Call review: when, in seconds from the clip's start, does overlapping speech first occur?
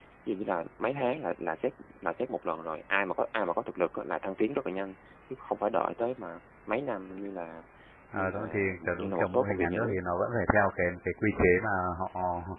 8.1 s

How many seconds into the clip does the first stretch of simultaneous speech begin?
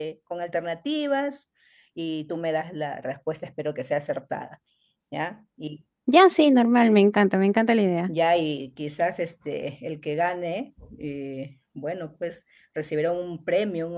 none

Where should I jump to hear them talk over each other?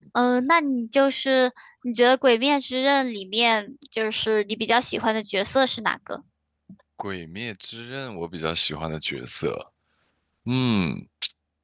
none

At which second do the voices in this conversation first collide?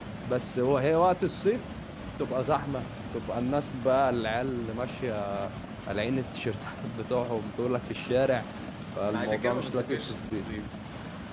9.1 s

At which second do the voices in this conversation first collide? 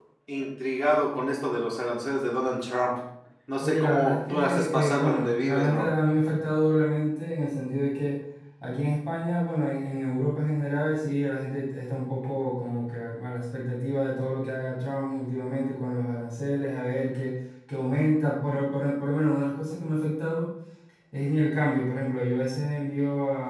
3.6 s

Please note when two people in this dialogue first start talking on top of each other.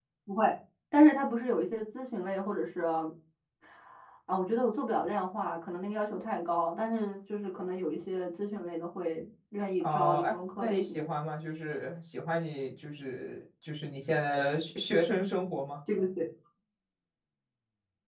9.8 s

